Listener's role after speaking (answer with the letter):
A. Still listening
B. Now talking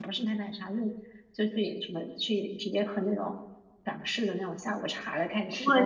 A